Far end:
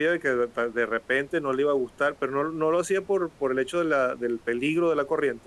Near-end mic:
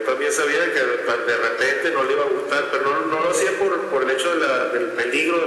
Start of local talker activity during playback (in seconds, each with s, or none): none